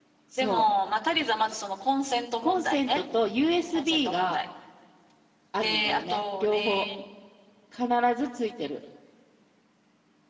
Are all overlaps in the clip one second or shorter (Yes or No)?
No